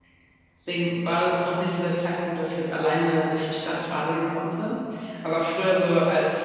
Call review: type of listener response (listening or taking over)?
listening